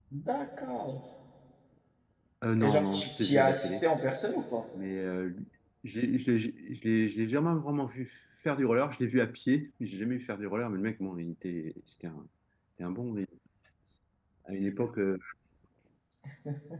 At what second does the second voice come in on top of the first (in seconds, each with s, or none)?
2.6 s